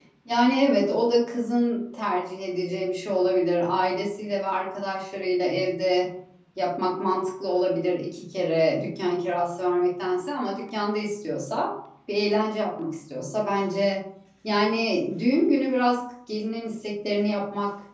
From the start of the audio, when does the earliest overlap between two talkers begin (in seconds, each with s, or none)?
none